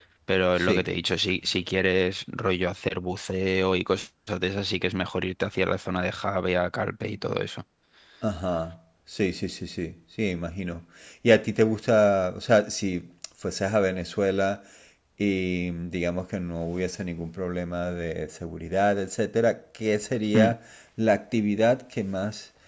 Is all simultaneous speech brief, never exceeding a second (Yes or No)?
Yes